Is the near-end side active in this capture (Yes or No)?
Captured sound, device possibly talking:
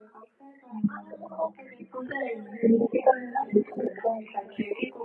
No